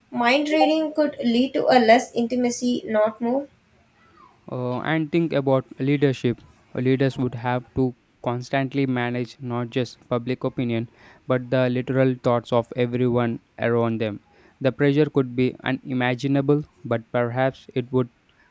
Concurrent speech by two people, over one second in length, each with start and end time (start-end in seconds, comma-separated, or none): none